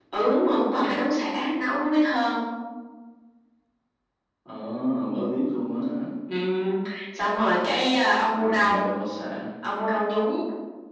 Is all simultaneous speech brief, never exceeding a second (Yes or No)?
Yes